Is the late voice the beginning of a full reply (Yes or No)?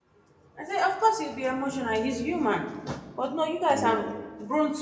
No